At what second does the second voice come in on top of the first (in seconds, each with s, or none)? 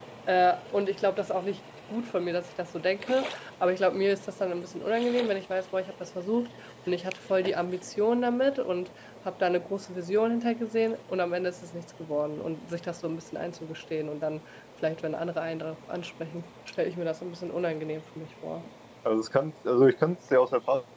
none